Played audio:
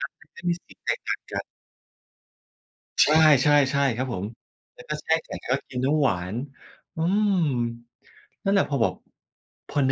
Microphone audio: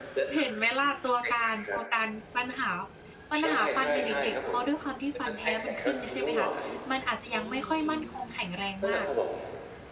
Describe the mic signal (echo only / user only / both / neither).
both